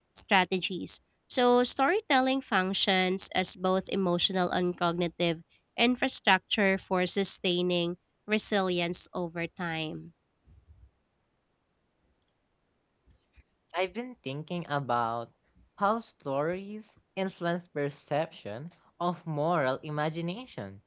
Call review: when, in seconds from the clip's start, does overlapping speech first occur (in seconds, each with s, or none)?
none